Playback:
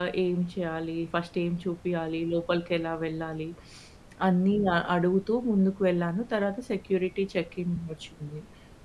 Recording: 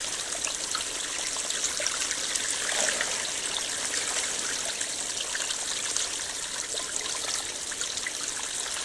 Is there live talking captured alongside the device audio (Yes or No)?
No